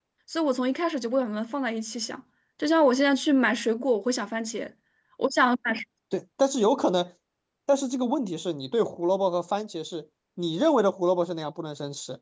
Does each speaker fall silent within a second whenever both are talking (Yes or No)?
Yes